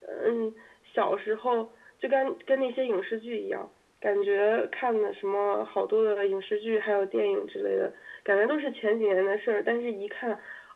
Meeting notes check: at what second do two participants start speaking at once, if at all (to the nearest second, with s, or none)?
none